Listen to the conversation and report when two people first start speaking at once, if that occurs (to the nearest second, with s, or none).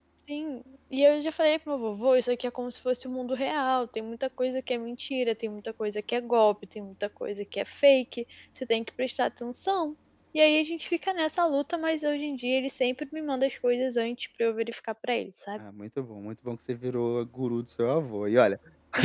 none